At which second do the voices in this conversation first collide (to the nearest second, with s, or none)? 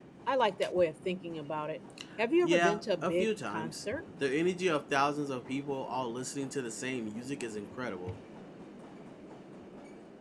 2 s